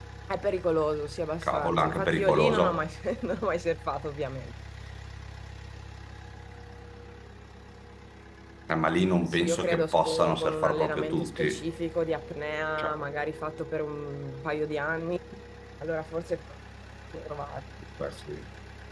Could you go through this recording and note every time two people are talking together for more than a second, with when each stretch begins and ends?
1.4-2.9, 9.3-11.6

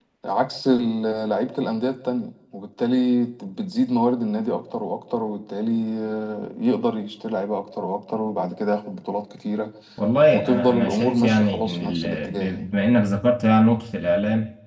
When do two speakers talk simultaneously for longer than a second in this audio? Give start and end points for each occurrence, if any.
10.3-12.7

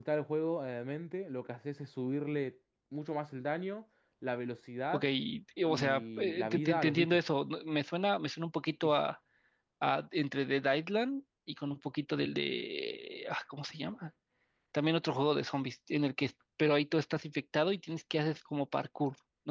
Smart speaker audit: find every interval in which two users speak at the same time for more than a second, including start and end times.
5.7-7.2

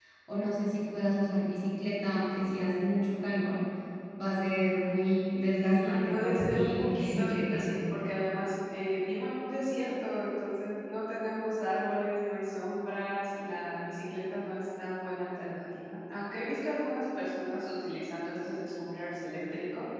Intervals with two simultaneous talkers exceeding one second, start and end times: 5.6-7.7

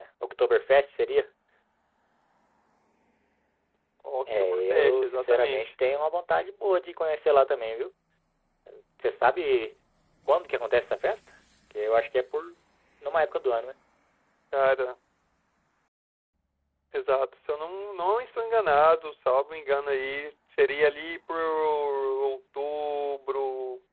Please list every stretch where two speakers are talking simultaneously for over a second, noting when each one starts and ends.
4.3-5.6

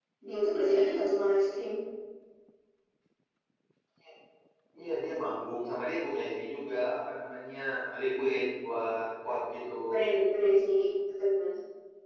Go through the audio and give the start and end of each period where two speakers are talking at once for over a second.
none

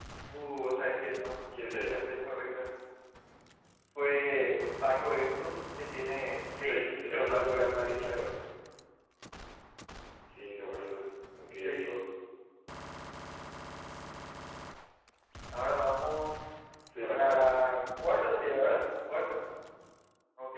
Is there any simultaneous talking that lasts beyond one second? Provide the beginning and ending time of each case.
6.6-8.2

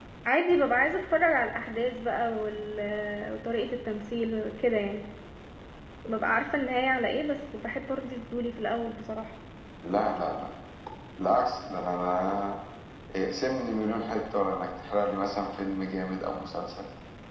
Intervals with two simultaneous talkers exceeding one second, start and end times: none

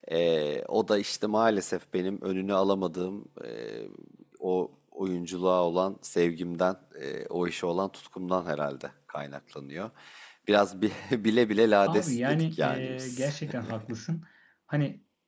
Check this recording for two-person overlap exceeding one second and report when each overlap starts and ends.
11.8-13.3

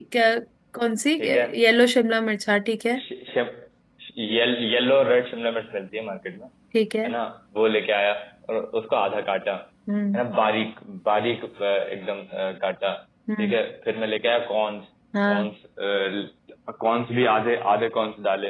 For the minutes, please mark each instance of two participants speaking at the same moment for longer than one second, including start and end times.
none

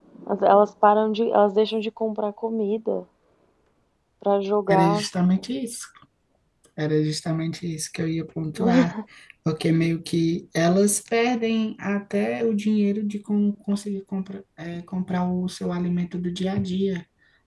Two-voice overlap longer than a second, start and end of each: none

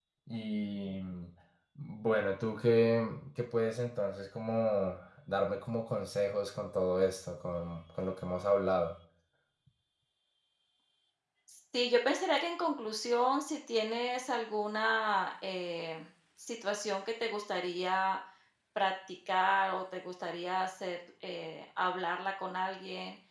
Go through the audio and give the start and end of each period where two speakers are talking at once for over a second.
none

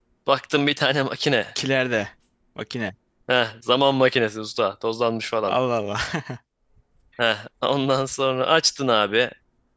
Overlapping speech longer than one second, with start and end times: none

